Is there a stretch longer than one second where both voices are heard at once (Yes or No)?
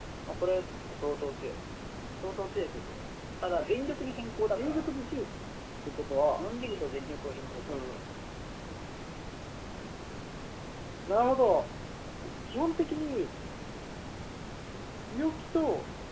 No